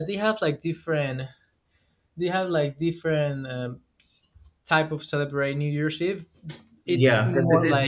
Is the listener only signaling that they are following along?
No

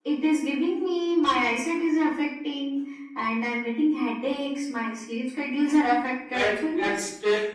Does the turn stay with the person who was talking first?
No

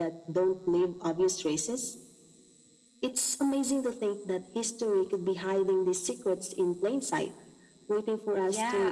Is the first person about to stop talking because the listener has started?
Yes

